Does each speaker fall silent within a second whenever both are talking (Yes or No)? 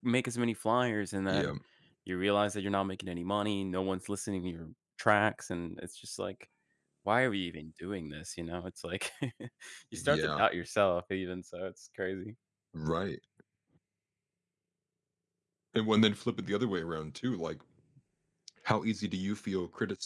Yes